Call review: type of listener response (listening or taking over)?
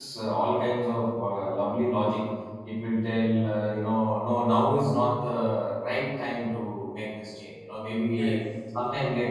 listening